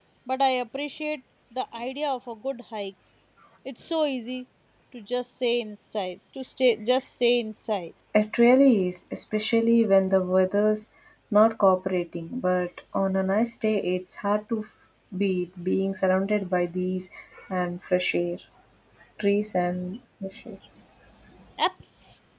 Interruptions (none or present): none